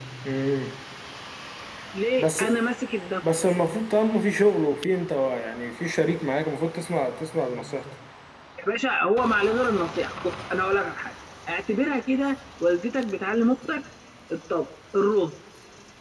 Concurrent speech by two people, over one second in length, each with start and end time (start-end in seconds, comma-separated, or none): none